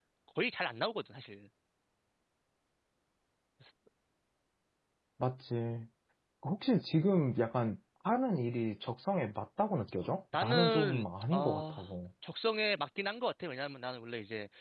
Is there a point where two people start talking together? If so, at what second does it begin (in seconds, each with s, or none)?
10.3 s